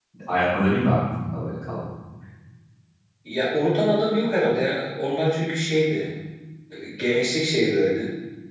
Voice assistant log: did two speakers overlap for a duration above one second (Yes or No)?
No